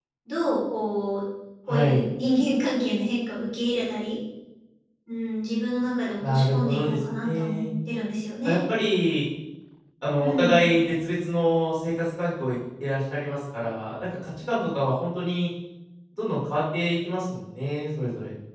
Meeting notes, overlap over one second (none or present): present